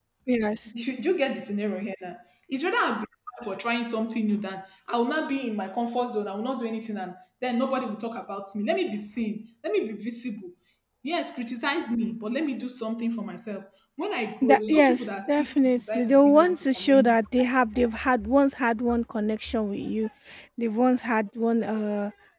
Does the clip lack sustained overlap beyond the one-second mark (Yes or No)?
No